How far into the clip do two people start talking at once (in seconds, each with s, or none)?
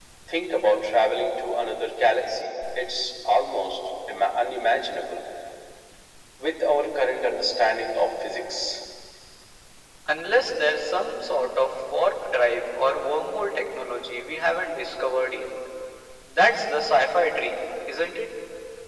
none